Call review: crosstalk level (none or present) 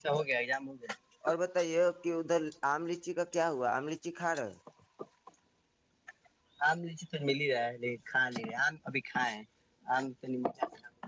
none